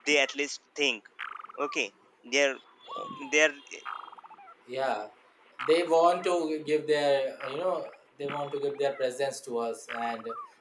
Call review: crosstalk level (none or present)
none